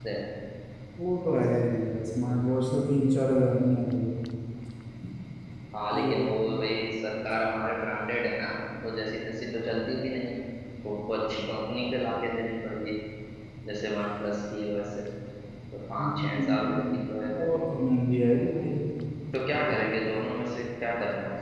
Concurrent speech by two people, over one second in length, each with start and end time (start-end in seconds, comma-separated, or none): 16.0-17.5